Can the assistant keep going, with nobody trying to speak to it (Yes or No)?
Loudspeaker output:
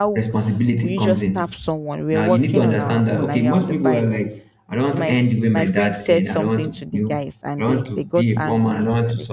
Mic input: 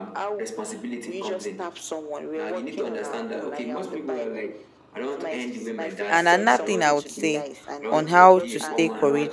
No